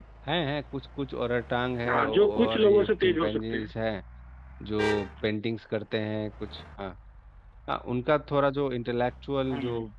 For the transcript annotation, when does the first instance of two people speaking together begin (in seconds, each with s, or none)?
1.9 s